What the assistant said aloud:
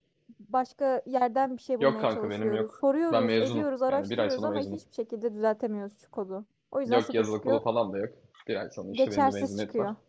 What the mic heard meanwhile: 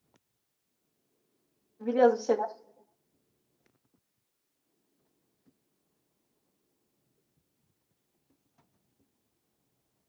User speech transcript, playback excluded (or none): Biliyoruz bir şeyler.